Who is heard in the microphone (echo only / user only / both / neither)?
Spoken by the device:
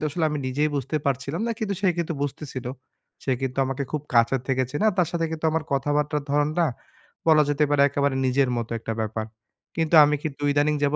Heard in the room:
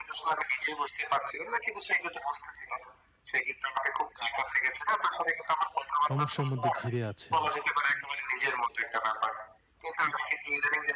both